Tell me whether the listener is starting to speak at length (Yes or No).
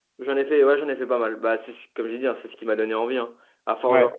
No